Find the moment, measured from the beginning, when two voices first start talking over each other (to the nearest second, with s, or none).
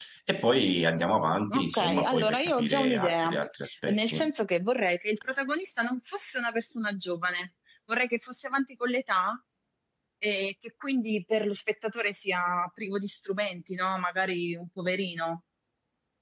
1 s